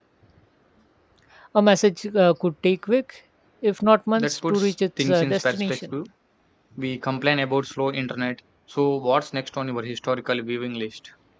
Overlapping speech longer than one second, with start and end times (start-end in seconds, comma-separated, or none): 4.2-5.8